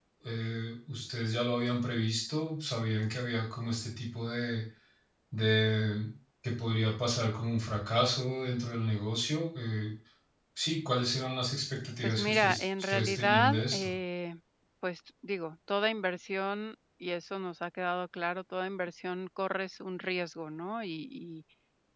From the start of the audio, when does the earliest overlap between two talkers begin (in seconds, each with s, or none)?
12.0 s